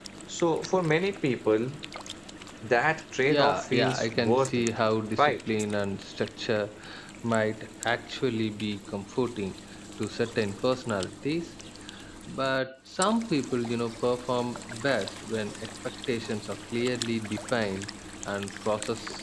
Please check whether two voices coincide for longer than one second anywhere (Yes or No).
Yes